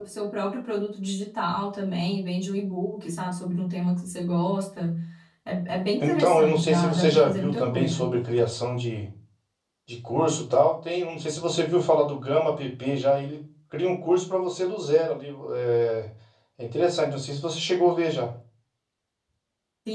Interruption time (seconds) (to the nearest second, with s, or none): 6 s